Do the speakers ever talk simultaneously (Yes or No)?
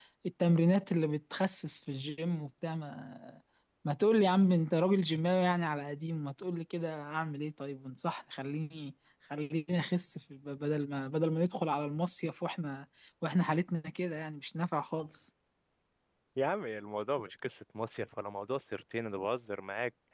No